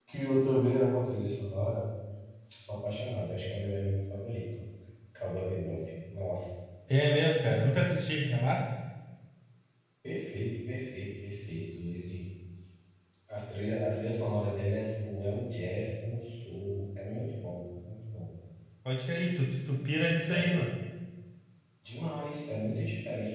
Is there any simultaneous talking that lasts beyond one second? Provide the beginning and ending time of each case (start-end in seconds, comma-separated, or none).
none